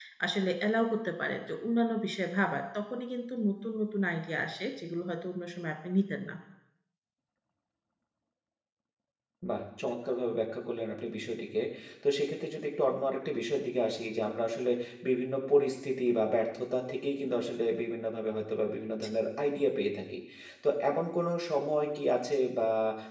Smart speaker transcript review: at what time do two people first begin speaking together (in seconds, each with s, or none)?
none